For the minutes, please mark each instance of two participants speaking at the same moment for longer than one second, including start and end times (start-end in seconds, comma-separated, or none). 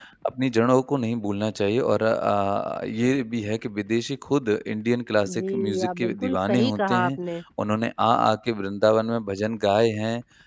5.3-7.1